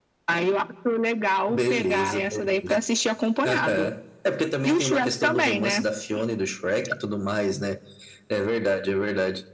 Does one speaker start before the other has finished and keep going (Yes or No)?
Yes